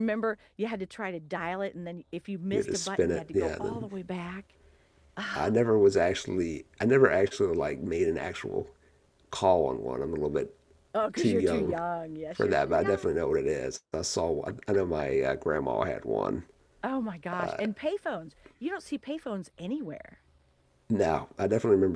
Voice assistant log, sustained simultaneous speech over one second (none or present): present